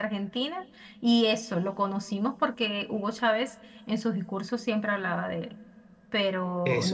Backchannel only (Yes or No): No